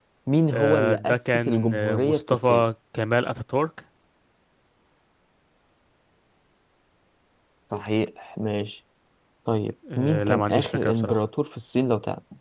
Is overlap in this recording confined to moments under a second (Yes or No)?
No